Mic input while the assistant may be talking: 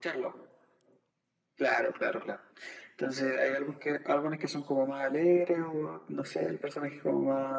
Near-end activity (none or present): none